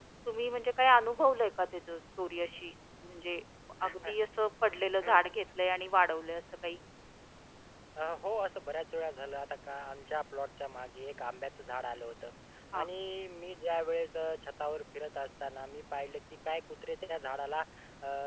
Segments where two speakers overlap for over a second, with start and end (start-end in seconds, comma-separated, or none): none